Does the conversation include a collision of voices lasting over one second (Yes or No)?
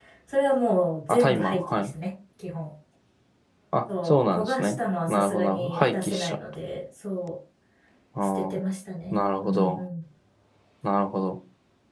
Yes